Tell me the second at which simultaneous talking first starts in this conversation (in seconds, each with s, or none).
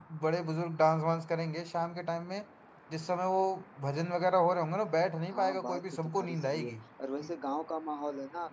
5.3 s